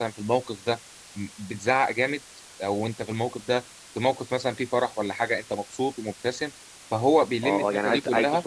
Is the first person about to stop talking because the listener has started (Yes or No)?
Yes